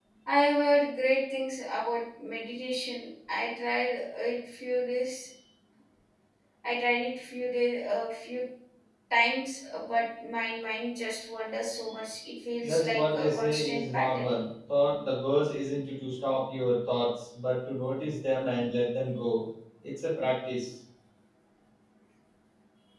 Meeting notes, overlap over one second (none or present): present